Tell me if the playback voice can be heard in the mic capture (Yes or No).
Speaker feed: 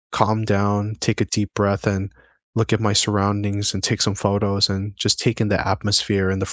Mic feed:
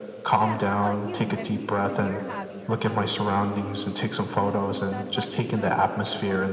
Yes